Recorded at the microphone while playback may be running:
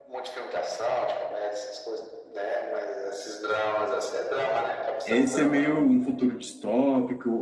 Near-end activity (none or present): present